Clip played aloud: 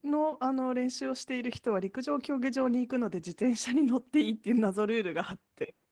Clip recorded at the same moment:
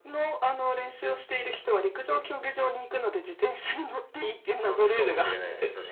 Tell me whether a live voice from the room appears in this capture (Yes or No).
Yes